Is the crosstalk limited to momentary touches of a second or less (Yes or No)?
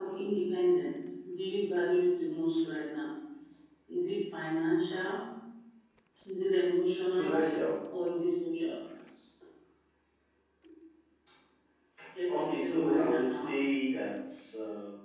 No